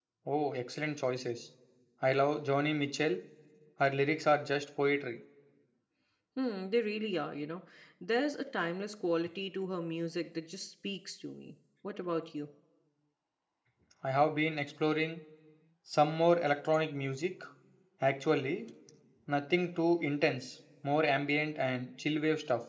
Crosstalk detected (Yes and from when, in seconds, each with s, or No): No